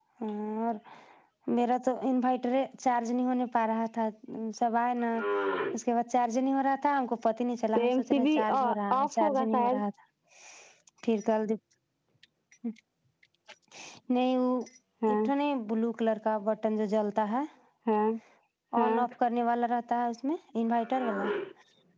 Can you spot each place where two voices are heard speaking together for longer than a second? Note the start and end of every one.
7.8-9.8

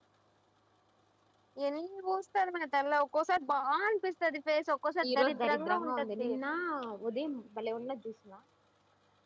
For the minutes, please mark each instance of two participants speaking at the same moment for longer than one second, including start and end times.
5.1-6.3

